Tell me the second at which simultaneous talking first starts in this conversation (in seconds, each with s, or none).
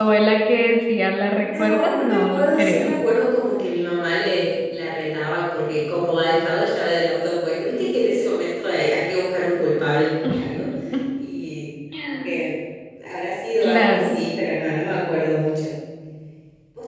1.4 s